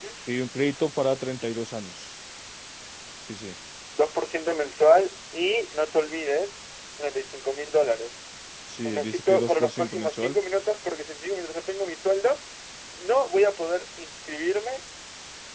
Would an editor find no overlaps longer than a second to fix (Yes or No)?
No